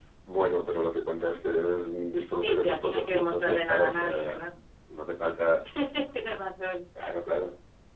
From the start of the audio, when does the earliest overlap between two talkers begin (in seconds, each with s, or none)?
2.4 s